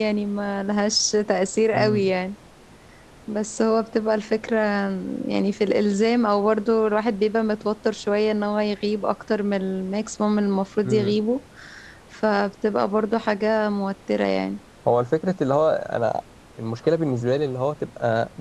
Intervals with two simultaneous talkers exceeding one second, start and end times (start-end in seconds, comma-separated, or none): none